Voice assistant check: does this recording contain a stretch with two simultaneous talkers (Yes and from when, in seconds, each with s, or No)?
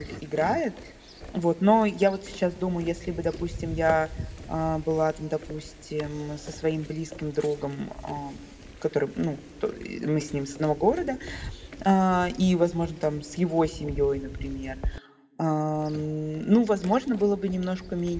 No